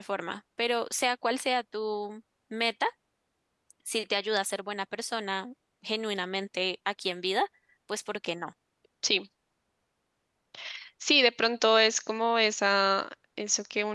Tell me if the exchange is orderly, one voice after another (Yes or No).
Yes